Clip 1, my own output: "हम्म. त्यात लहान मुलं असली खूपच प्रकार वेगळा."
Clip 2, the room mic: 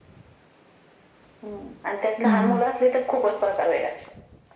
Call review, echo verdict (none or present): present